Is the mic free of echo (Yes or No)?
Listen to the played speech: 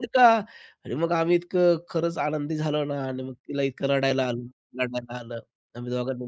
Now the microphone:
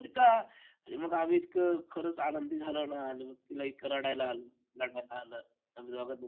No